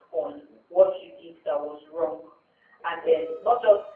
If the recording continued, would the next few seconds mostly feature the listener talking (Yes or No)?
No